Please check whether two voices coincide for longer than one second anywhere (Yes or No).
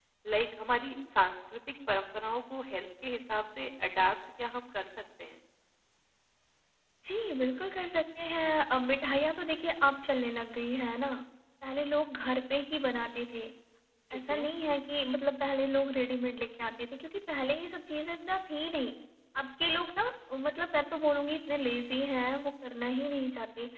No